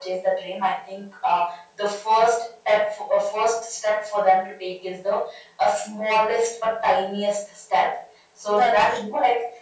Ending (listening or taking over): listening